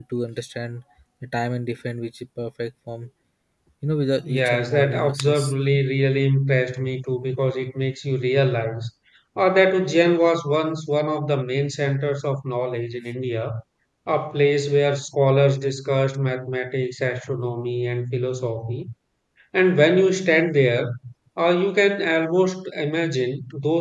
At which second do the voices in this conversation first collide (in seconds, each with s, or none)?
4.2 s